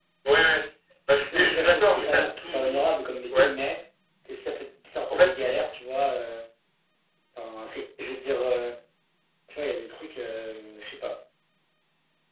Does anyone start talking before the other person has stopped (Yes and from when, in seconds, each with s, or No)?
Yes, from 1.3 s